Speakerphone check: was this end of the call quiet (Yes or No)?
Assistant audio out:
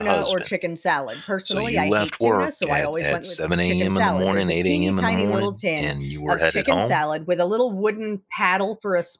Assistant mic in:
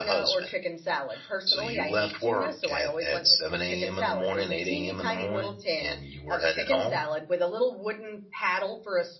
Yes